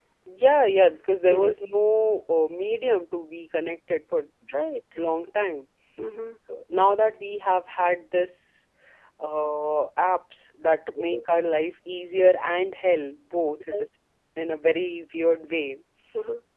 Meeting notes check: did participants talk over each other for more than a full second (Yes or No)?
No